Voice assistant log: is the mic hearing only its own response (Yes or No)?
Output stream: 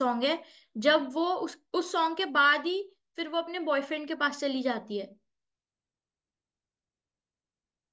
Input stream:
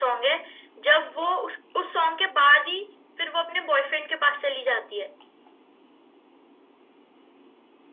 Yes